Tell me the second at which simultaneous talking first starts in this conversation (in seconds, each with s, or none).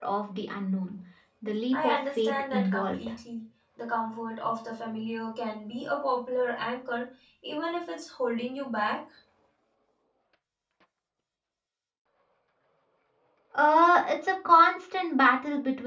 1.7 s